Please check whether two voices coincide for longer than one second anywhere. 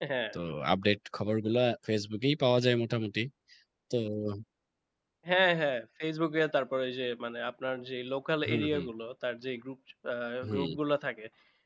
No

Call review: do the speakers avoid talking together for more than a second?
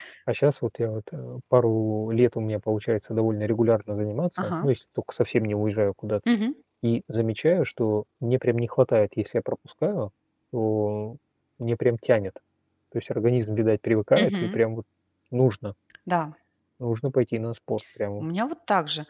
Yes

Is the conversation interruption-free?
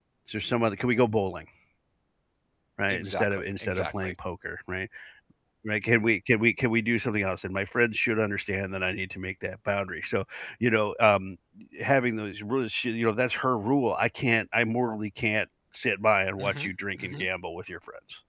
No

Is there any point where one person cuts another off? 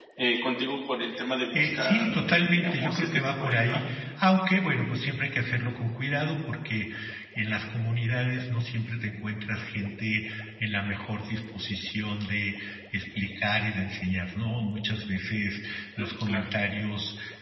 Yes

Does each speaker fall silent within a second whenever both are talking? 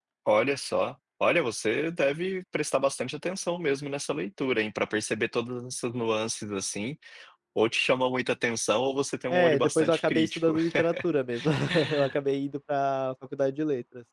No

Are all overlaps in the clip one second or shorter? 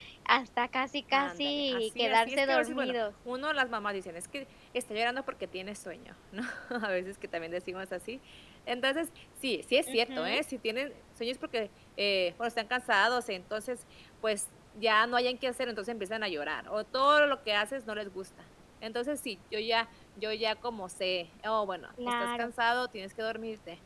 No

